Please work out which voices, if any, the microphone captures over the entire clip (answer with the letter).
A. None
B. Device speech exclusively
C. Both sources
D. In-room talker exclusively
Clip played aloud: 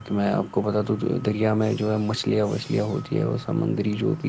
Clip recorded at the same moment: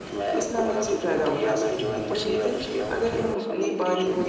C